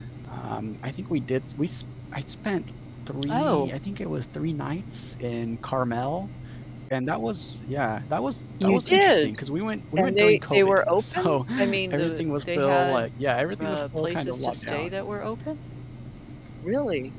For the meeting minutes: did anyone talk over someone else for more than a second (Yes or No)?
Yes